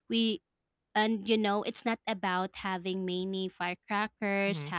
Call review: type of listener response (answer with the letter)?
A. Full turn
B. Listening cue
B